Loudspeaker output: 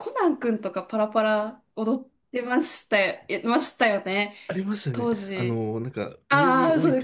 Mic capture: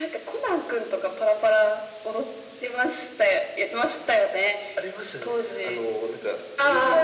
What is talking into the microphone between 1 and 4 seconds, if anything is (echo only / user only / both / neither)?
echo only